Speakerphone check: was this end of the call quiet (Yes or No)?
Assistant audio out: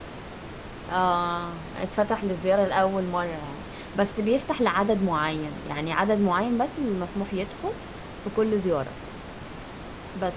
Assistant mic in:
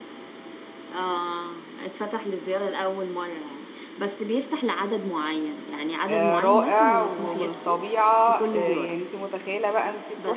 No